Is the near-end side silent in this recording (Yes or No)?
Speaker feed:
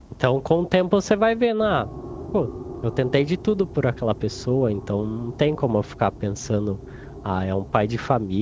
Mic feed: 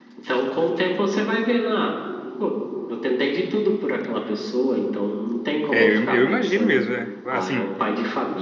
No